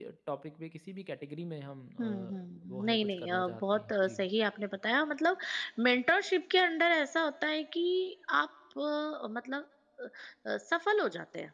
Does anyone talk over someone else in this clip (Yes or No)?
Yes